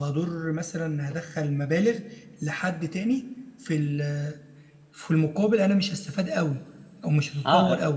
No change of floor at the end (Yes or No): No